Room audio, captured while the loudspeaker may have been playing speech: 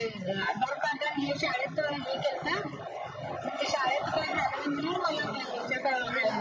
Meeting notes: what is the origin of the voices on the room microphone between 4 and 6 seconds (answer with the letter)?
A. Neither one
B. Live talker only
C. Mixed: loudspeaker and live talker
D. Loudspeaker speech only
C